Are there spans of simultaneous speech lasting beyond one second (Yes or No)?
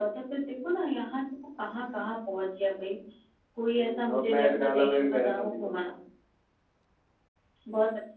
Yes